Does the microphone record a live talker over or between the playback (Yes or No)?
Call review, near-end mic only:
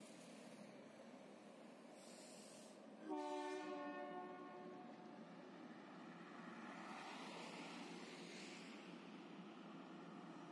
No